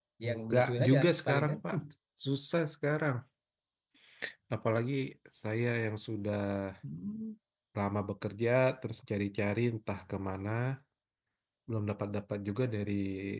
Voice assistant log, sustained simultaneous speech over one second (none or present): present